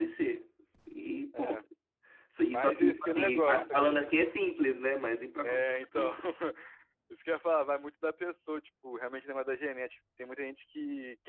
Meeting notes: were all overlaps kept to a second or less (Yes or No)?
No